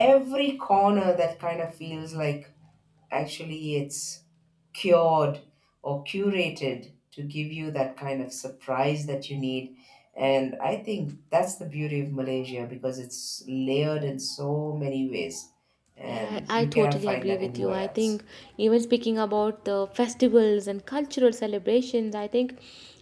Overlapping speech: Yes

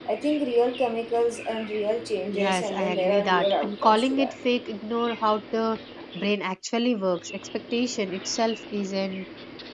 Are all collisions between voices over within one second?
No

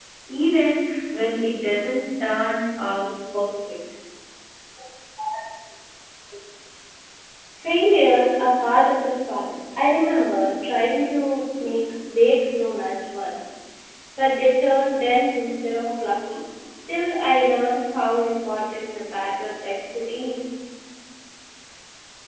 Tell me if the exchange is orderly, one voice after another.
Yes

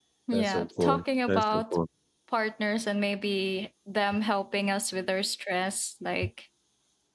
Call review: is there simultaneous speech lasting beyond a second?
Yes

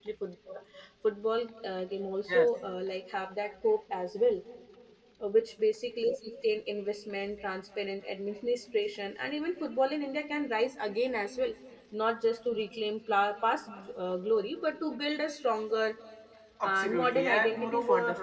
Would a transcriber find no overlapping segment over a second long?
No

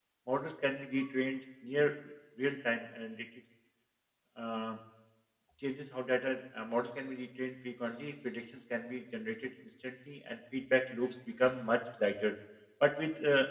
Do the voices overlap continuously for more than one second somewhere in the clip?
No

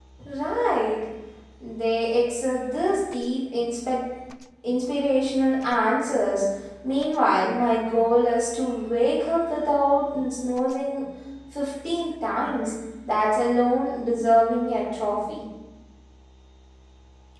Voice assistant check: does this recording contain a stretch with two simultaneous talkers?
No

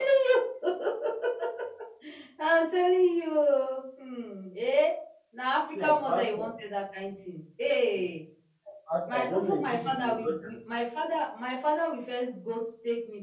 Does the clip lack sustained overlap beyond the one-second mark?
No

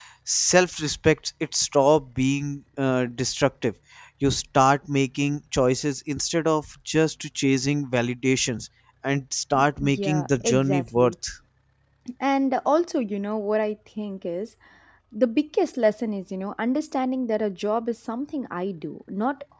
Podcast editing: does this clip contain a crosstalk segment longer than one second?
Yes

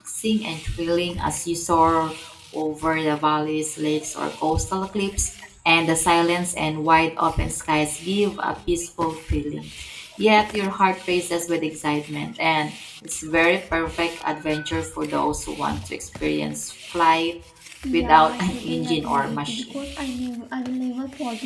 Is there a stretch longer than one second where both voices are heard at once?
Yes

